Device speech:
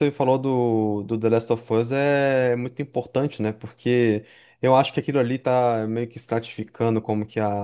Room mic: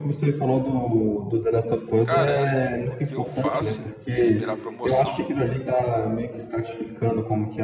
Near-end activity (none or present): present